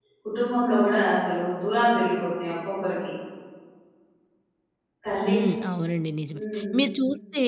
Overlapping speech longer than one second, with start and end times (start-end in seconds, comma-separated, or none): none